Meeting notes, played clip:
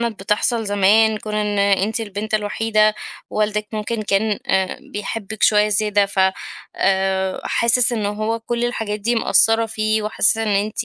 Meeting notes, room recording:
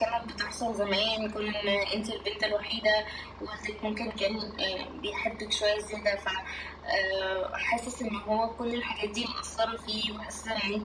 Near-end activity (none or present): none